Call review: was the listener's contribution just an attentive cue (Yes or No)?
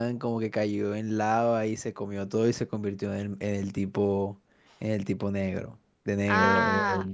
No